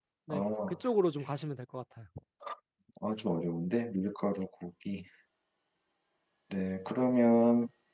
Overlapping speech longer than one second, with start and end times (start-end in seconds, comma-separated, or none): none